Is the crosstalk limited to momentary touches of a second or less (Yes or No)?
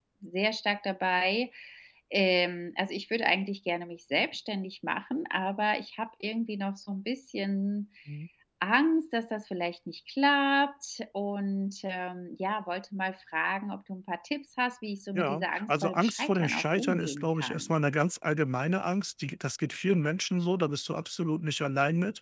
No